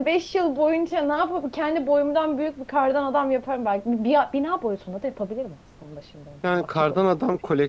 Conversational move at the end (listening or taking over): taking over